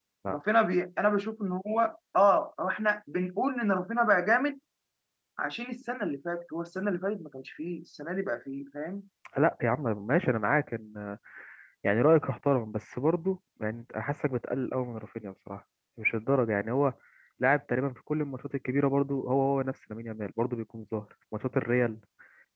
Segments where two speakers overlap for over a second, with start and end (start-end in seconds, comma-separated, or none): none